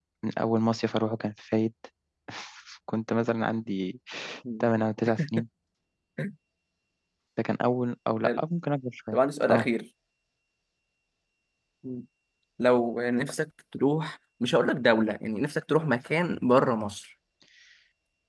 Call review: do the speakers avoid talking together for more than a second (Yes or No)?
Yes